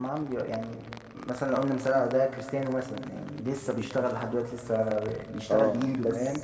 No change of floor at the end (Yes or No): No